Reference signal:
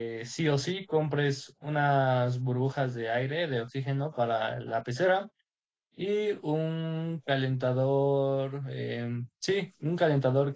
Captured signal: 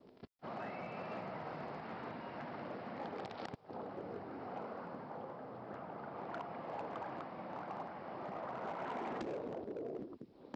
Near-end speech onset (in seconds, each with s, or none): none